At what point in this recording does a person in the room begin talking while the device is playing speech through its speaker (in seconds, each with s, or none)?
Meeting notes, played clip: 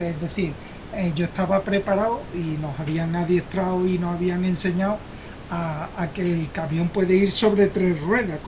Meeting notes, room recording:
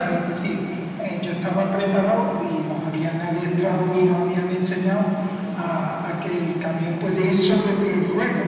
none